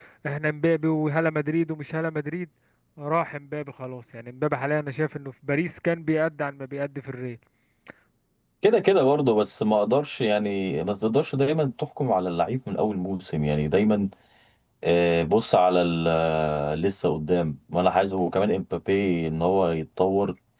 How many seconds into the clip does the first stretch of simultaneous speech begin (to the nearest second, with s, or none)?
none